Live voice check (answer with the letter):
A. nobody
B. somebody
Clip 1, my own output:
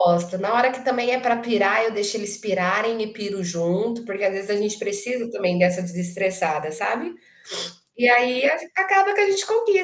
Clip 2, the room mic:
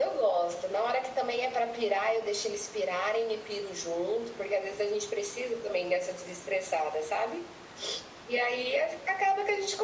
A